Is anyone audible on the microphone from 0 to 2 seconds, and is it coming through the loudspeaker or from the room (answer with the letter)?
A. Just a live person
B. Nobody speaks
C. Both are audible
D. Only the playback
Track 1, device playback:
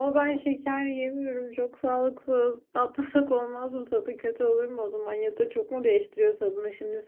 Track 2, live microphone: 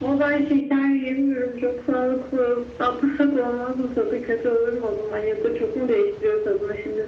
D